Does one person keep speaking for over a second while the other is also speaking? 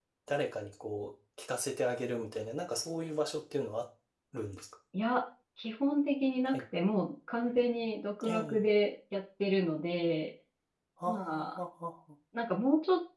No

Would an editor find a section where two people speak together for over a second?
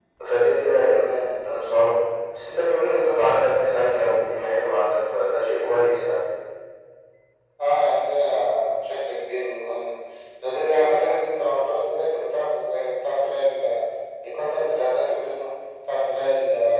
No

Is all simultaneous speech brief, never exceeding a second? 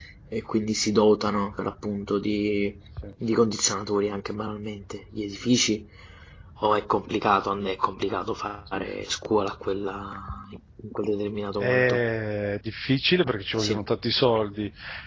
Yes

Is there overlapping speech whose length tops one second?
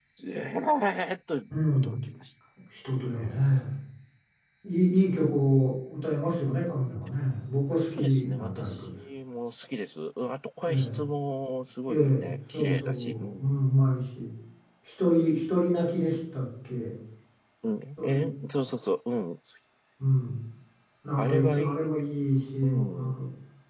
Yes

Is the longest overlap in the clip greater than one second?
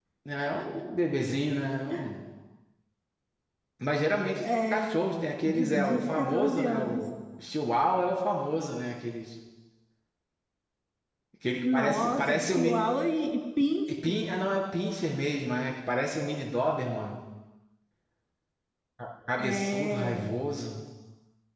Yes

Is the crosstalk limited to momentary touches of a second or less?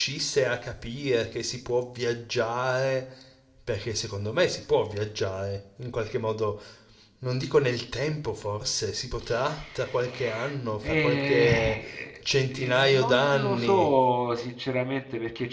No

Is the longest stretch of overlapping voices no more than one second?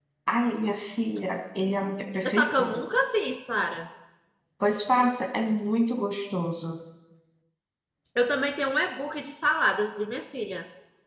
Yes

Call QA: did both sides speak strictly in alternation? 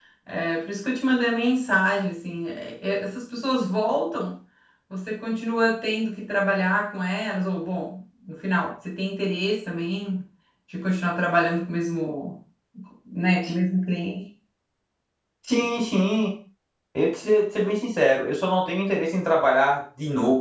Yes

